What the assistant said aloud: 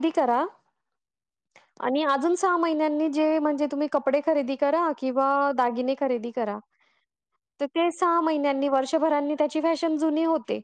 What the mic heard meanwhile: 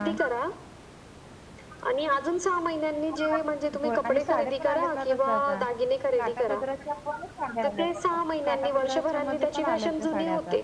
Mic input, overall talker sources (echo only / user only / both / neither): both